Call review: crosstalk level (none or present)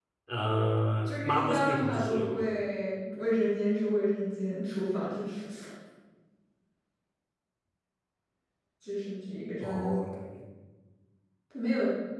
present